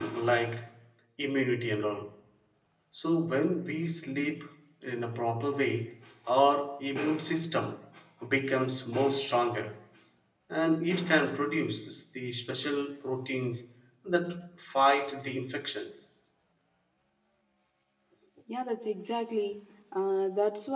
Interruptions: none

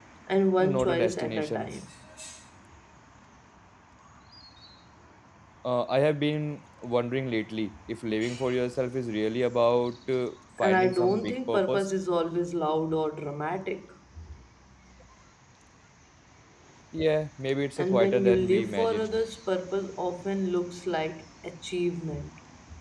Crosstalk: present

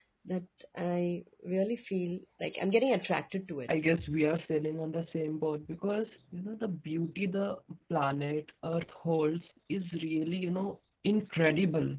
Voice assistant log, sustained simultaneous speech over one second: none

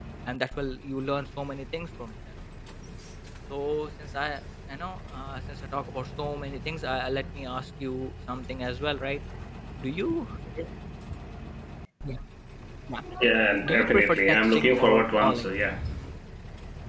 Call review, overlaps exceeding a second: present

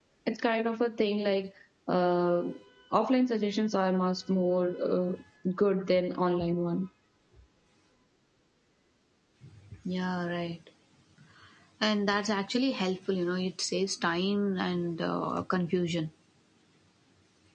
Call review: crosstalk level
none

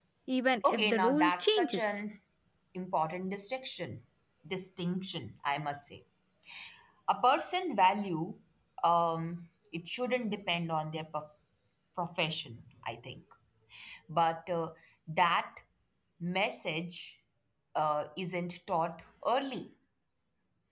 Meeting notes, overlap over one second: present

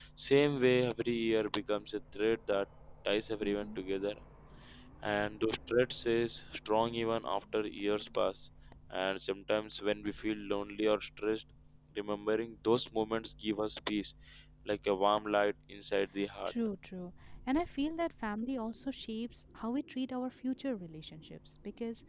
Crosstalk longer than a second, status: none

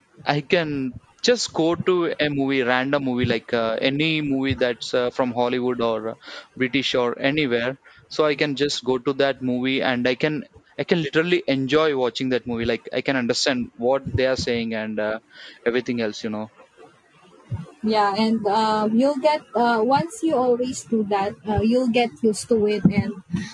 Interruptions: none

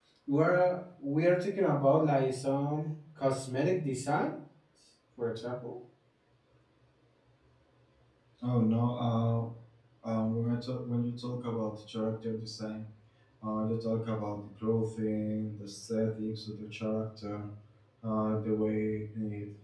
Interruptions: none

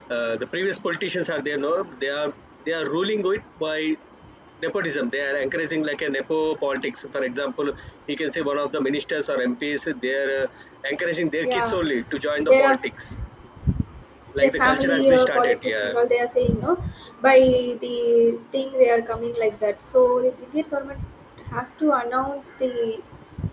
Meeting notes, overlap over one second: present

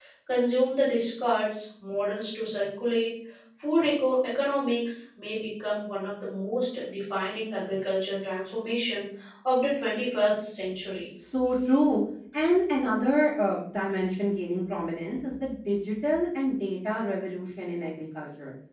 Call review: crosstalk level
none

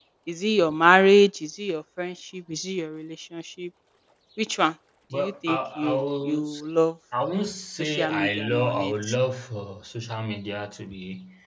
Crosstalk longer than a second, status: present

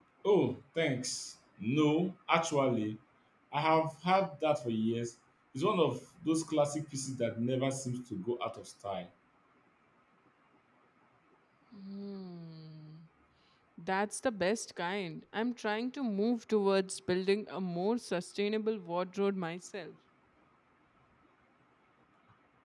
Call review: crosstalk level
none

